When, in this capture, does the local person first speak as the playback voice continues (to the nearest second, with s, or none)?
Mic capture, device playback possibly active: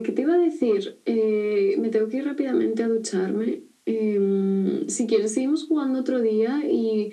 none